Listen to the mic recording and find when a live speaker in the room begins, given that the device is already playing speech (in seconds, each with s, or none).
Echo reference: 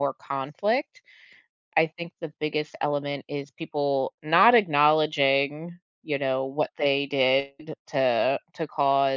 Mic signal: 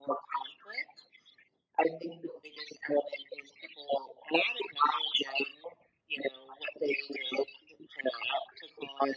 none